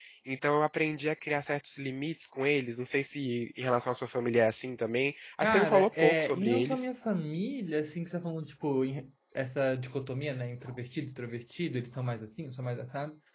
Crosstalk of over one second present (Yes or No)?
Yes